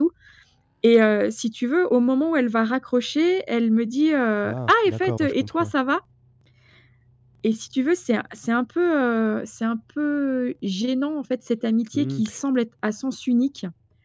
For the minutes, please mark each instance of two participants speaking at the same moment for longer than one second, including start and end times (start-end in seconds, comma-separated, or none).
4.4-5.7